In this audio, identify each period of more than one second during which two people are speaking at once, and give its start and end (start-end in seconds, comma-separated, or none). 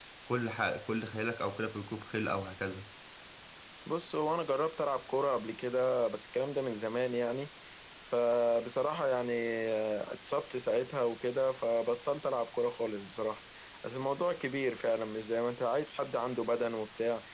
none